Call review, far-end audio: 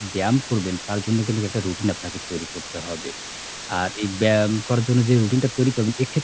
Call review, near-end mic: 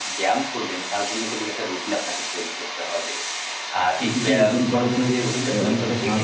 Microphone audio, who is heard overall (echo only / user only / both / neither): both